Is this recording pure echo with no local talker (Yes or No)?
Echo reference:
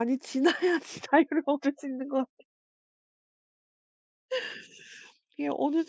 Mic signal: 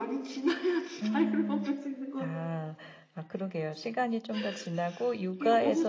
No